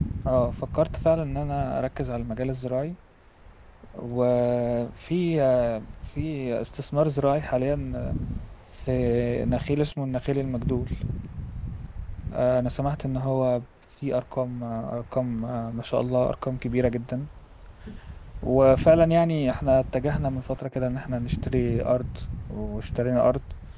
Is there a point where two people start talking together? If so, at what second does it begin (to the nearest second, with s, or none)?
none